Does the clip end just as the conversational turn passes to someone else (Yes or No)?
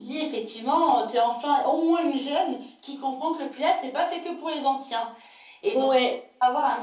No